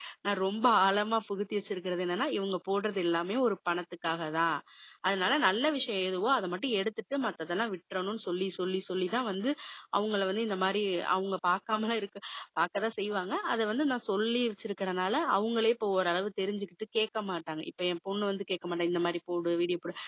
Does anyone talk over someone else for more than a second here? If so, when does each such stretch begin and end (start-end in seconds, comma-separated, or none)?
none